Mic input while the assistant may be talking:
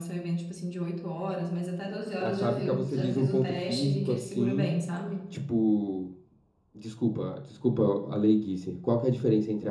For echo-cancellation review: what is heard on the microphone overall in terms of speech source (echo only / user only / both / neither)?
both